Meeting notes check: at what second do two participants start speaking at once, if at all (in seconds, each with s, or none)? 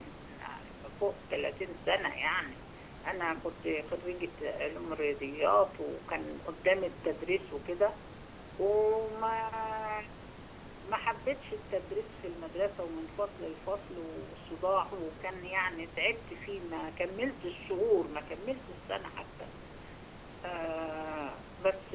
none